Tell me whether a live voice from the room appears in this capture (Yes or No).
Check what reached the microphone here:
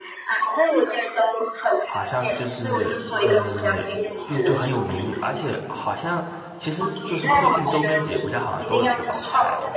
Yes